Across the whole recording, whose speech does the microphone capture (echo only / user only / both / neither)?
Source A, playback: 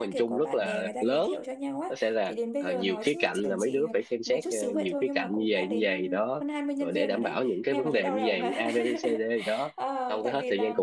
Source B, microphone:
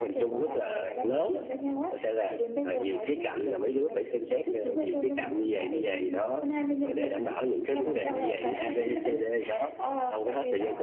echo only